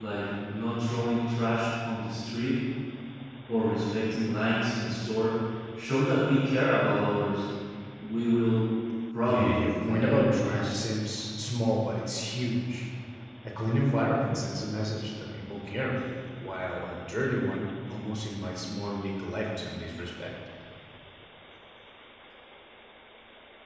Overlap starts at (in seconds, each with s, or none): 9.2 s